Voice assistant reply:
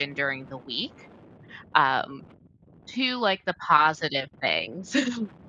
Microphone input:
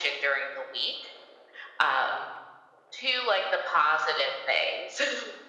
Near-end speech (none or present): none